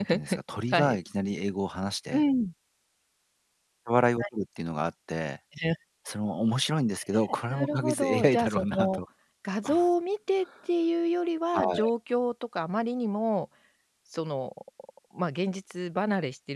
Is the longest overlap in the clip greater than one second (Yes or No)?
Yes